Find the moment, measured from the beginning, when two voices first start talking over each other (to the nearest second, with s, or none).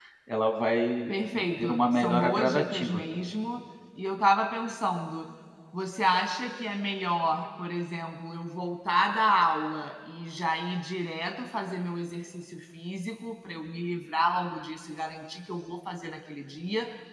2 s